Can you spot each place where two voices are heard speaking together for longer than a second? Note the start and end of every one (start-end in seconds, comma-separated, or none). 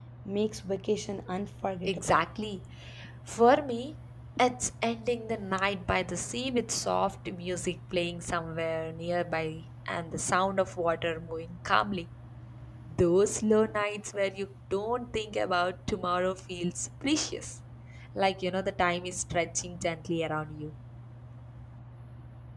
none